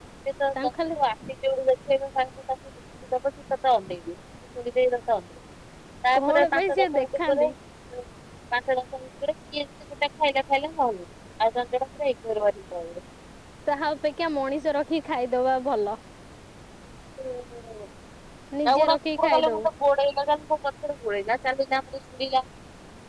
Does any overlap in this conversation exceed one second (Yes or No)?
Yes